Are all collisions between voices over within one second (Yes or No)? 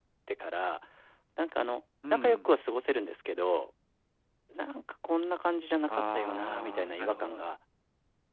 No